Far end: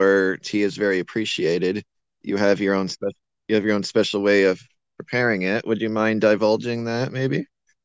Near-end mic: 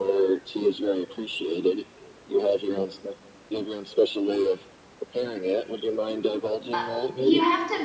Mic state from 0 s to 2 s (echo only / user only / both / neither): echo only